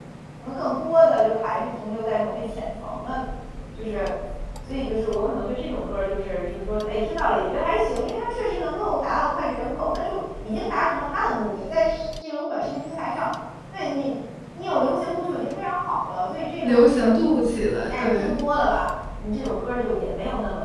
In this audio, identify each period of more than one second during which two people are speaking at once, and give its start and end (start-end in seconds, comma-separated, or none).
none